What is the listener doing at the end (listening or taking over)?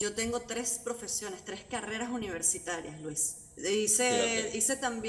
listening